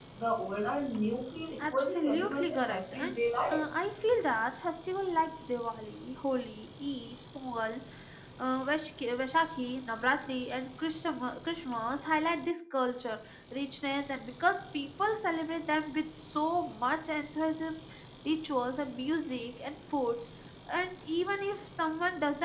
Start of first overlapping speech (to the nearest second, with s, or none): 2 s